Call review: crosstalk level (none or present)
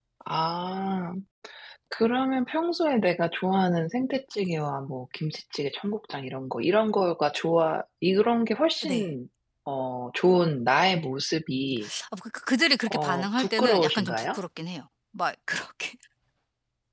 present